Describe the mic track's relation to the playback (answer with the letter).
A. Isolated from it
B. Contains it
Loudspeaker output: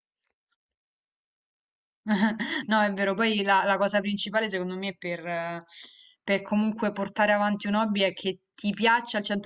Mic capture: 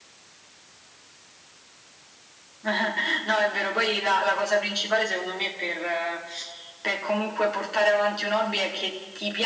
B